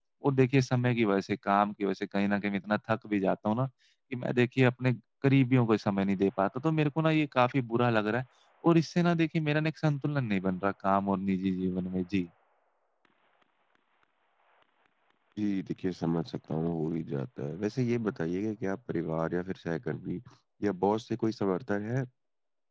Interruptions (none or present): none